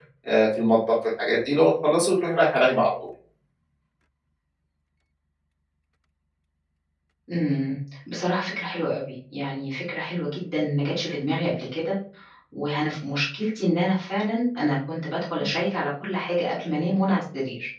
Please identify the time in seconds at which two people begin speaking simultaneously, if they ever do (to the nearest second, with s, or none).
none